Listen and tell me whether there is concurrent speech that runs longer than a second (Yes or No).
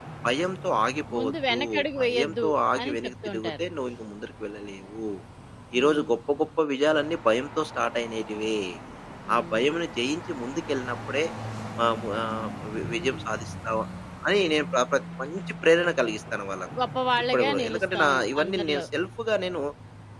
Yes